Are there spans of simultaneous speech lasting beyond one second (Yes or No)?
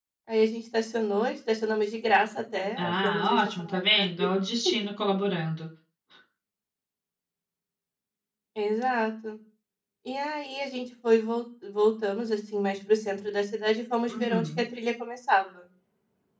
Yes